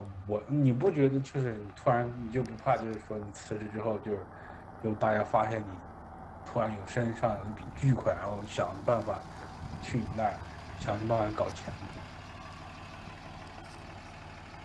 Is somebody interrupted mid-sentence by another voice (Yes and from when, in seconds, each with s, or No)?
No